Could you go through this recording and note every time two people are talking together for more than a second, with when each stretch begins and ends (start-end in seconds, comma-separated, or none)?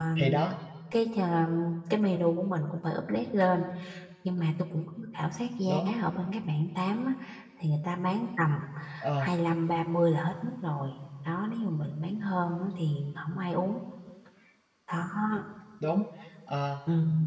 none